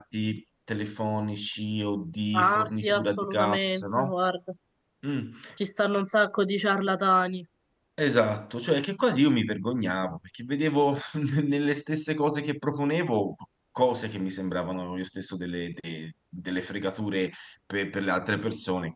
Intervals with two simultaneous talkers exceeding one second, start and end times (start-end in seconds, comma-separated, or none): 2.3-4.1